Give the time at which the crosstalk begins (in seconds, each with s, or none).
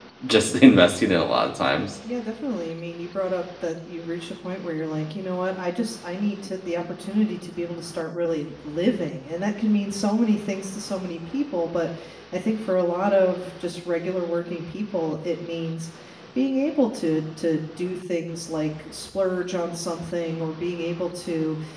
none